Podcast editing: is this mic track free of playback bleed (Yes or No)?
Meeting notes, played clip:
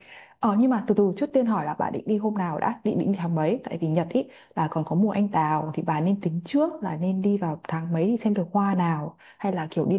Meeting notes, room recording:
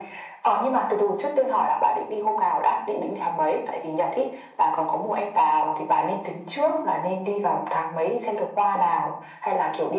No